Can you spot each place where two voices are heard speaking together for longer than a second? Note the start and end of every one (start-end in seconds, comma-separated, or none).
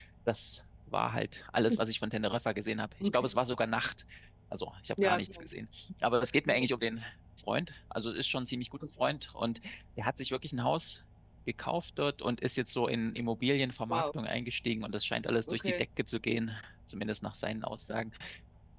none